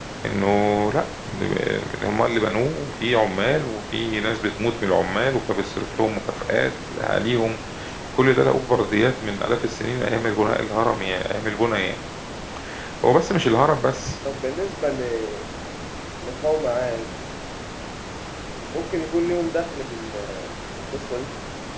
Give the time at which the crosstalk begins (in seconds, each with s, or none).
none